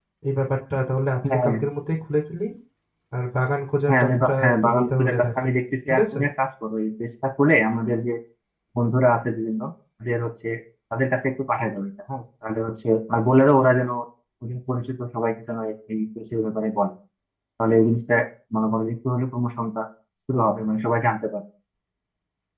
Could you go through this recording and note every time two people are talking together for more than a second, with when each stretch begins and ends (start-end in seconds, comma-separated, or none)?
3.9-5.5